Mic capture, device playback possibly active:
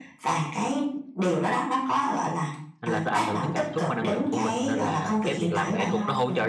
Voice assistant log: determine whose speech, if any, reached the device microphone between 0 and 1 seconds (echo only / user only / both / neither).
echo only